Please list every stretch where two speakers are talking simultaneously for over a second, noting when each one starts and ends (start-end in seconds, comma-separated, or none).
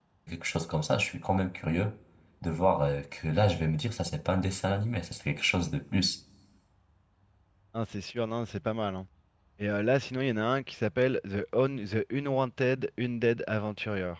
none